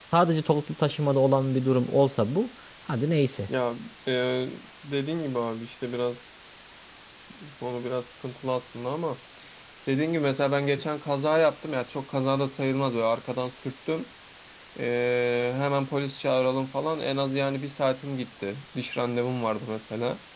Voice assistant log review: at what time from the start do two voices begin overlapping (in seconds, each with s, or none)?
none